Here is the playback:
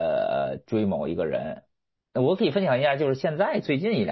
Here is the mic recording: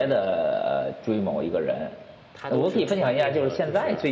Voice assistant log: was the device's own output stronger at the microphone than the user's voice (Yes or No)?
Yes